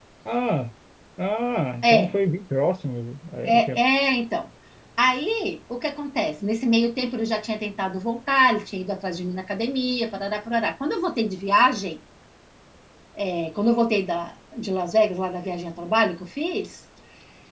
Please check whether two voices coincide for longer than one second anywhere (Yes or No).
No